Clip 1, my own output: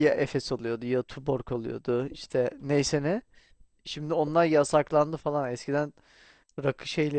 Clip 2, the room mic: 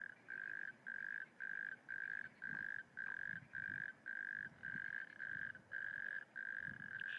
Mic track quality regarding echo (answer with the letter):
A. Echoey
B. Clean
B